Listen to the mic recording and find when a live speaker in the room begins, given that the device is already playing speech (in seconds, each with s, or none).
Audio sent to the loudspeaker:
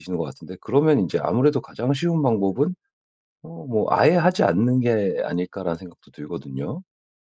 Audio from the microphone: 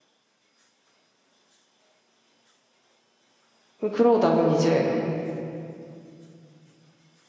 3.8 s